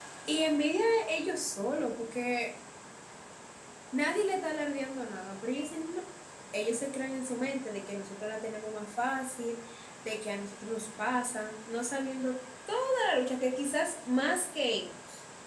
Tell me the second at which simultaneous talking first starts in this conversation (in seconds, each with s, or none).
none